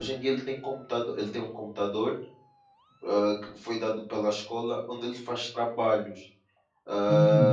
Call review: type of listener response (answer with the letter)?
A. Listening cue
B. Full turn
B